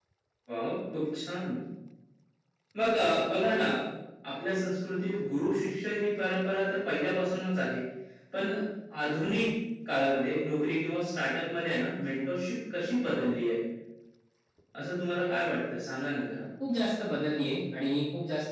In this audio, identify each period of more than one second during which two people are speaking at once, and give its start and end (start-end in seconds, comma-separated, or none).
none